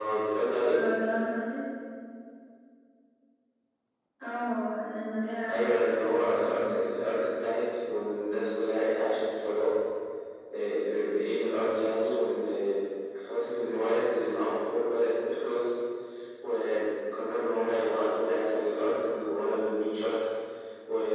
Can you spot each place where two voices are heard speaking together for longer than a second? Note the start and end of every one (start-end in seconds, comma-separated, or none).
5.5-6.9